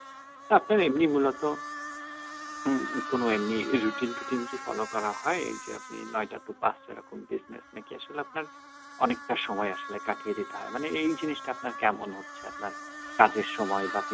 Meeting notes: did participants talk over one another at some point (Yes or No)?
No